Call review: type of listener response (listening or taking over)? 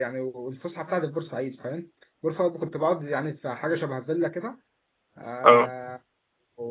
listening